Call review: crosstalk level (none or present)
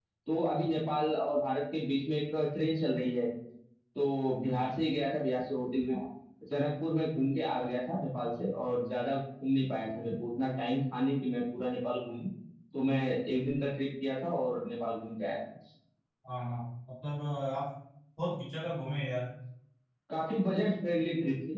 none